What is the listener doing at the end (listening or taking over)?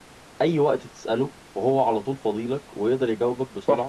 taking over